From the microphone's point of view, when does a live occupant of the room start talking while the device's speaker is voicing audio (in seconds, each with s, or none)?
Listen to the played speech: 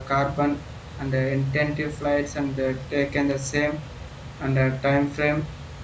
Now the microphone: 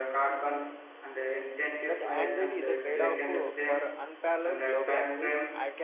1.8 s